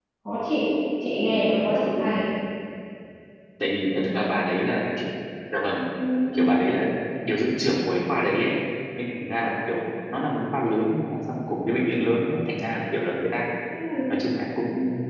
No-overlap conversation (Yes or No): Yes